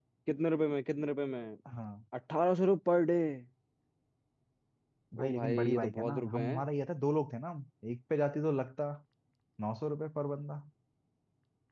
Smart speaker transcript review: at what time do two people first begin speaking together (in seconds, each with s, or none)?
5.2 s